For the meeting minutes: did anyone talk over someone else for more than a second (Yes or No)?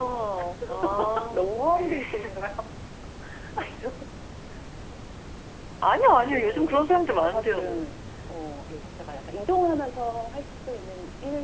Yes